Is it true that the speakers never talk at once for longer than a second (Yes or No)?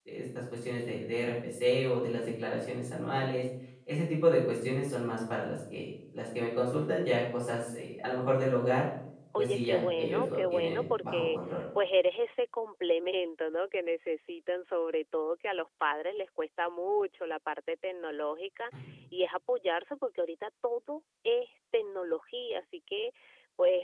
No